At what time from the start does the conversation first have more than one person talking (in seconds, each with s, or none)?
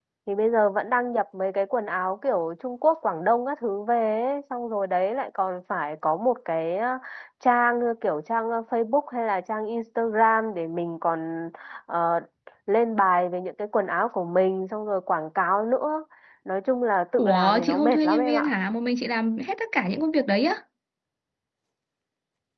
17.1 s